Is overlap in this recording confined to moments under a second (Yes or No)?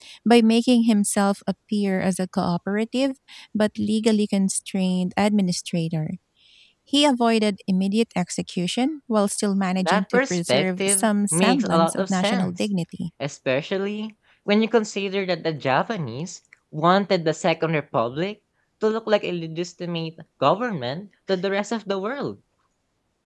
No